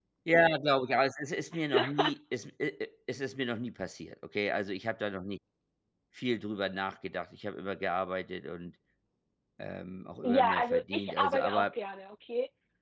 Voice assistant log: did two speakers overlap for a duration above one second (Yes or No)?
Yes